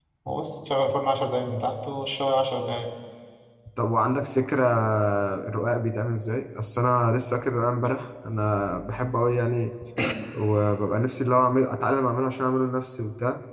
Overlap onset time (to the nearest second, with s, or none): none